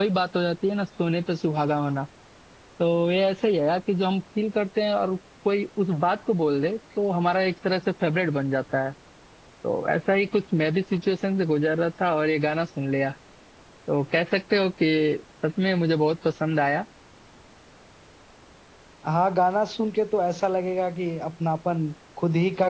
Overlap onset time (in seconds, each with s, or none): none